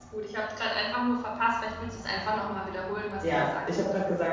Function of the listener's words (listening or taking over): taking over